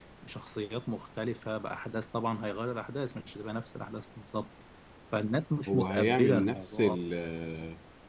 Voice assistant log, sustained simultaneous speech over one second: present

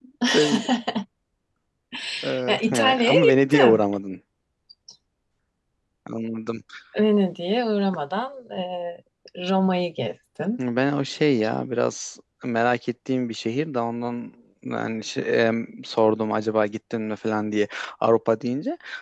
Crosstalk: present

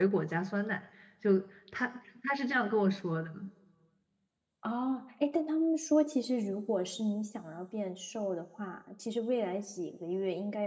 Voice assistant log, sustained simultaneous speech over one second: none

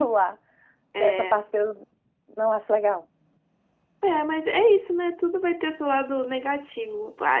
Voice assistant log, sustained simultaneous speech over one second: none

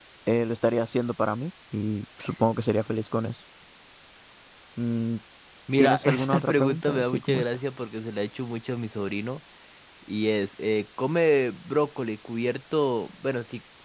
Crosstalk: present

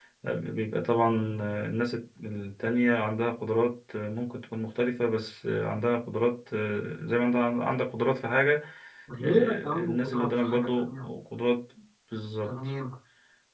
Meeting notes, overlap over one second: present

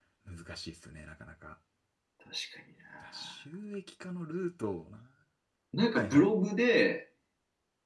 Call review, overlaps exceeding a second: none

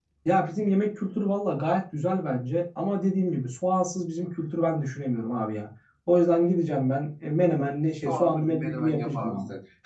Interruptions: present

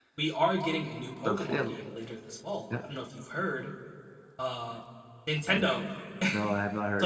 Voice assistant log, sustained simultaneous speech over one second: none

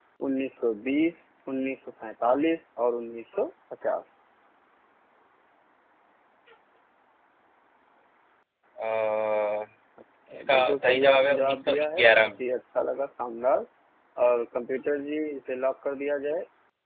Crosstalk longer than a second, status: present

